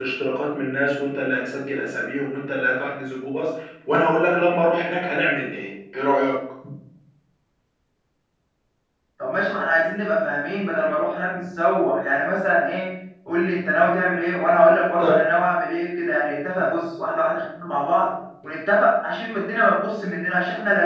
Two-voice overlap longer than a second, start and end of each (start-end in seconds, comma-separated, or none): none